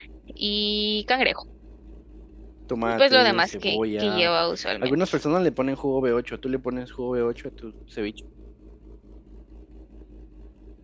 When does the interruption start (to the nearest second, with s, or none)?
3 s